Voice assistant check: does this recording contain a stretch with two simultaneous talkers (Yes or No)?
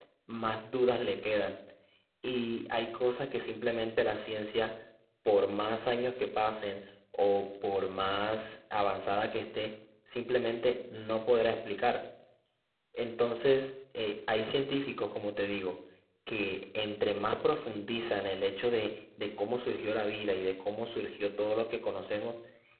No